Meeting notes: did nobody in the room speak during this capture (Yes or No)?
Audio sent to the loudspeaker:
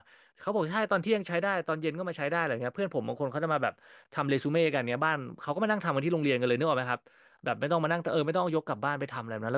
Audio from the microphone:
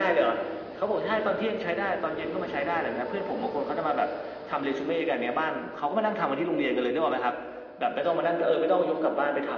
Yes